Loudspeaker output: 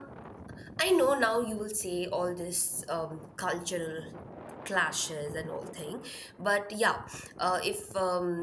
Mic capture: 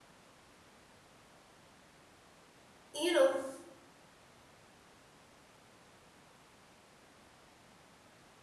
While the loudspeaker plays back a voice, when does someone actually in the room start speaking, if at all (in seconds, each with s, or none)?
2.9 s